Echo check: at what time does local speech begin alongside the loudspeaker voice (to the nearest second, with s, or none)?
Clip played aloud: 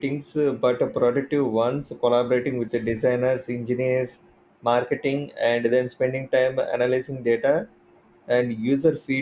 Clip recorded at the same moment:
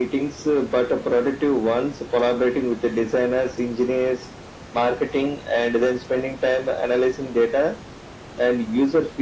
none